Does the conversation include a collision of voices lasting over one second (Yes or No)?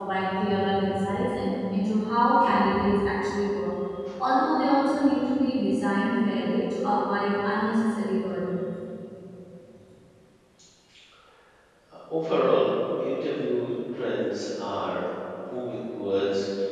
No